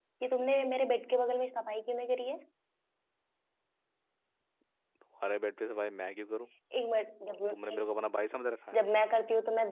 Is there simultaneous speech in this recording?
No

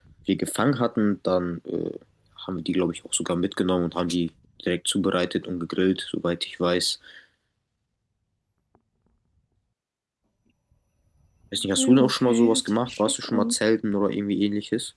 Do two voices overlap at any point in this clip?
Yes, from 11.8 s

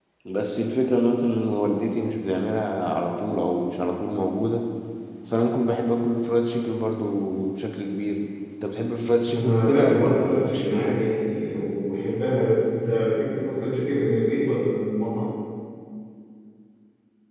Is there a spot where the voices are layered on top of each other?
Yes, from 9.3 s

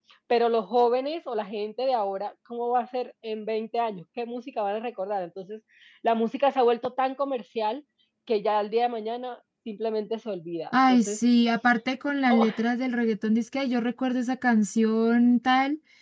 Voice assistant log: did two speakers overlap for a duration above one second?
No

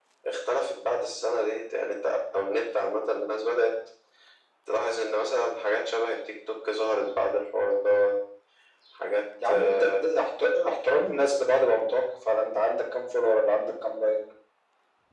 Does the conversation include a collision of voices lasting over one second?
No

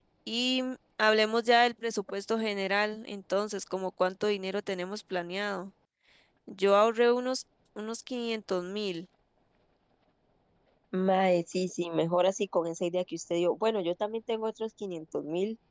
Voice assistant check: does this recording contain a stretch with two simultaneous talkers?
No

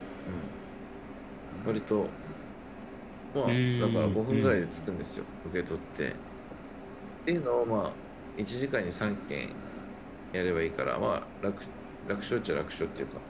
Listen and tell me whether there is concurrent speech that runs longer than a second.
Yes, from 3.5 s

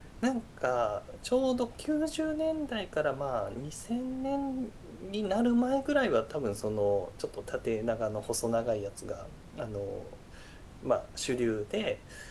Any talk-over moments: No

